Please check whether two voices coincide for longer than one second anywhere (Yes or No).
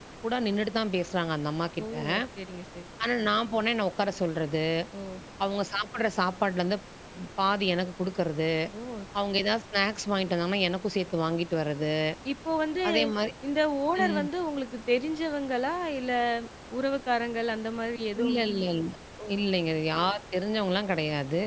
No